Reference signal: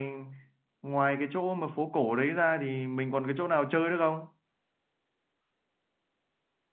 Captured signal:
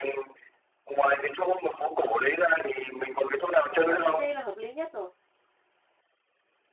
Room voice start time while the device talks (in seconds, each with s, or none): 3.7 s